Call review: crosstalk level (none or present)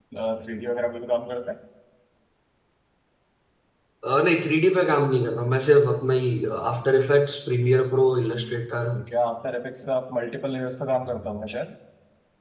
none